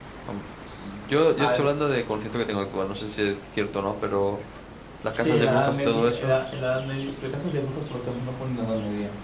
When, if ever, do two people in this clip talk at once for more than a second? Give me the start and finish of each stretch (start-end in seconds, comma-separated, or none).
5.2-6.4